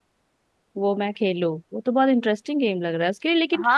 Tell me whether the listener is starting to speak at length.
Yes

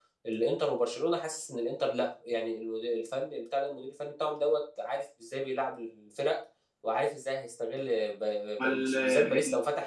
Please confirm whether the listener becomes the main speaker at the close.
No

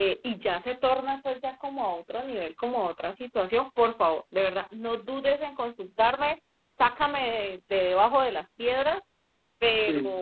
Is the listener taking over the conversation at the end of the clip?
No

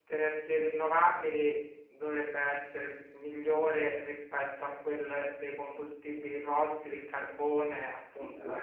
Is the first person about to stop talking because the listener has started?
Yes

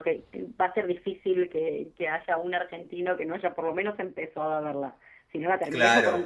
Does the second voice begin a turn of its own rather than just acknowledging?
No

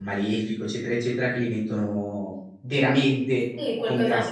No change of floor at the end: No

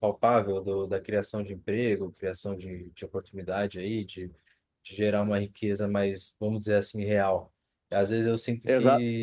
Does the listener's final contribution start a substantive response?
No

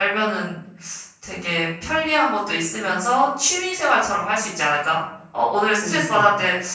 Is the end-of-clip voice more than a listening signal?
No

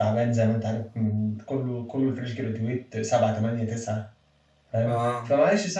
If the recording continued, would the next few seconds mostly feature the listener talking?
No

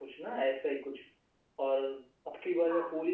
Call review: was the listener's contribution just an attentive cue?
Yes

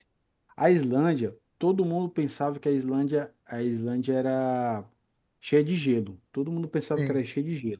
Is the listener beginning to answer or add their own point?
No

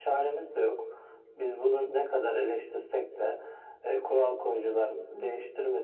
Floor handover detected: No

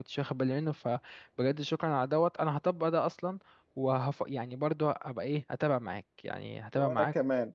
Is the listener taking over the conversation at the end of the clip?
Yes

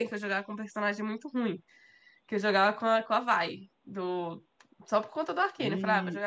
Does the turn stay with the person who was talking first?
Yes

